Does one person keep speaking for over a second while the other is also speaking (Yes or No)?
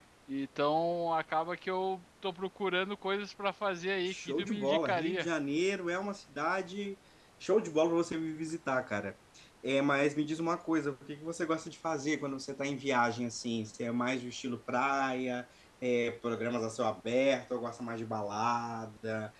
Yes